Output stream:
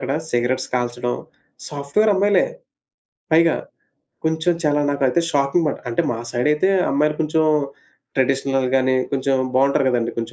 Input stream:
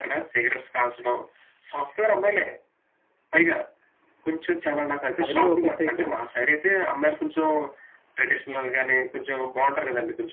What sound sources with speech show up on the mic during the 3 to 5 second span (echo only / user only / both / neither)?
echo only